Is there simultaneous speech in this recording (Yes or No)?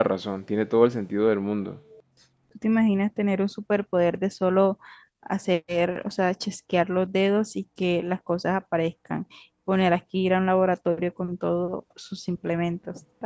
No